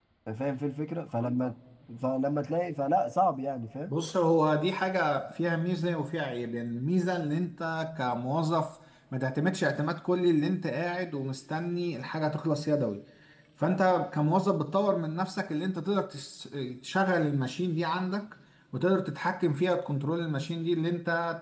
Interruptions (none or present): none